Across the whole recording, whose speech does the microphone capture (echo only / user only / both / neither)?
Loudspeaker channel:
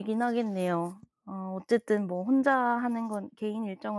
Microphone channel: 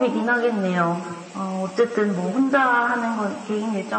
echo only